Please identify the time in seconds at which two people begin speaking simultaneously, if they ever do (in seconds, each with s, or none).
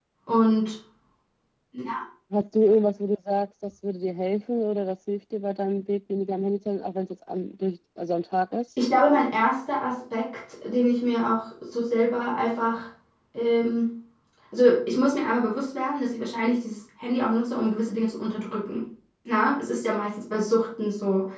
none